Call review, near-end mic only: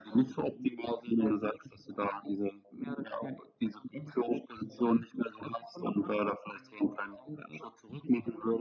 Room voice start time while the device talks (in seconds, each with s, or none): none